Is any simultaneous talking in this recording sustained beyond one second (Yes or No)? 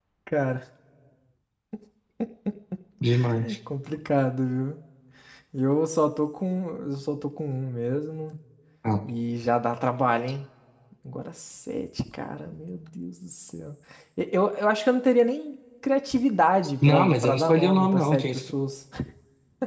Yes